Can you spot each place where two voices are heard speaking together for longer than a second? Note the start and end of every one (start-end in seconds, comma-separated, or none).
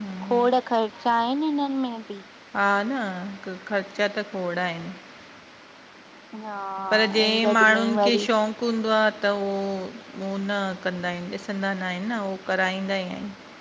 6.9-8.2